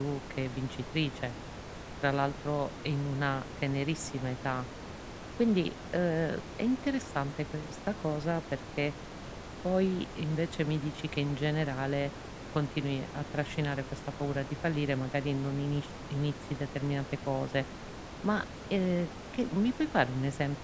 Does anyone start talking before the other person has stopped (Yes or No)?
No